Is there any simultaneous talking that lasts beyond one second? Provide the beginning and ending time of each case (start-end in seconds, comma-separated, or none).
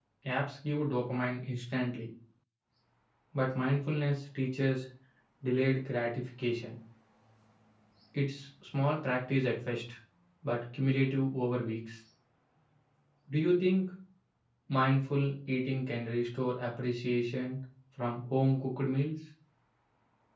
none